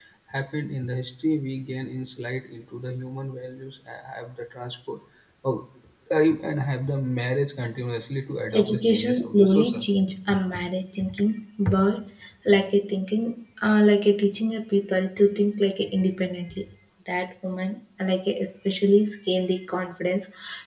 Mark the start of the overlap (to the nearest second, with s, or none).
9 s